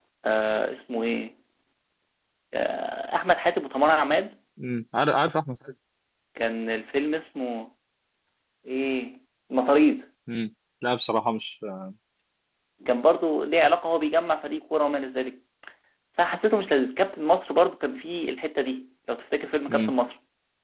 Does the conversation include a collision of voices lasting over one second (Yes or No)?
No